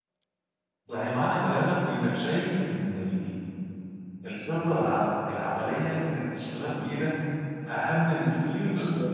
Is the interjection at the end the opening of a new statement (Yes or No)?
No